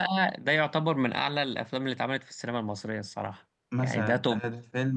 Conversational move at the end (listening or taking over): taking over